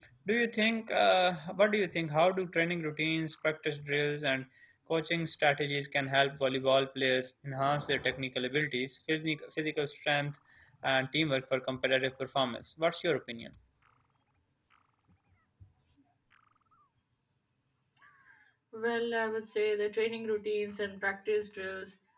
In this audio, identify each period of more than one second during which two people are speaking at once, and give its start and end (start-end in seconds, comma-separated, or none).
none